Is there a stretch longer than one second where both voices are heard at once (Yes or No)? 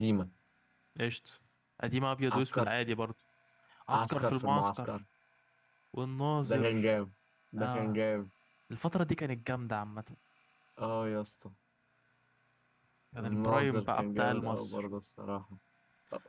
Yes